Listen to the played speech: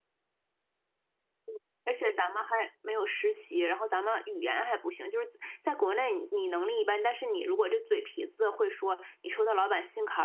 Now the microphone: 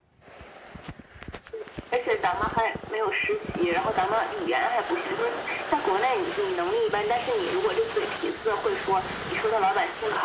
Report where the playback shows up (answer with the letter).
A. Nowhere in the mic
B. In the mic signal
B